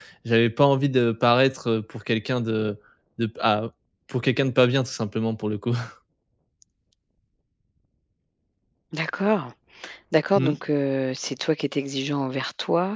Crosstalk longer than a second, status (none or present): none